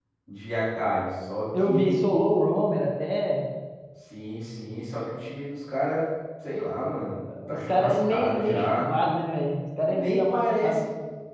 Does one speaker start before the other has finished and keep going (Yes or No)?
Yes